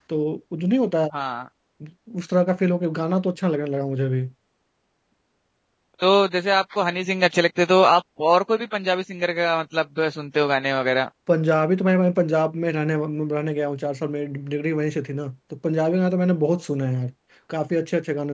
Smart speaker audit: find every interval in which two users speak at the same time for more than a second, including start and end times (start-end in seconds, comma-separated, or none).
none